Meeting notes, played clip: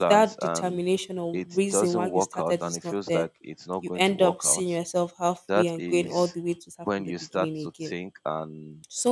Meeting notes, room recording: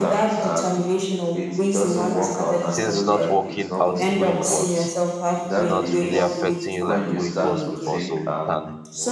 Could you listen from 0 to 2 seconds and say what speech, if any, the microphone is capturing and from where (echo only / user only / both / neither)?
echo only